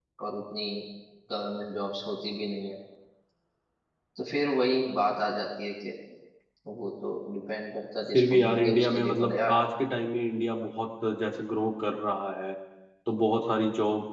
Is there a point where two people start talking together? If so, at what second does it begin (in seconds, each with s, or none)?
8.1 s